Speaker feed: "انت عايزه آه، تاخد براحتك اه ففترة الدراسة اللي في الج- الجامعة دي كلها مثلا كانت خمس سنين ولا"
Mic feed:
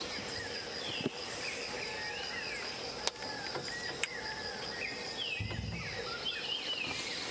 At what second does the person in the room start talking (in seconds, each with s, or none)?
none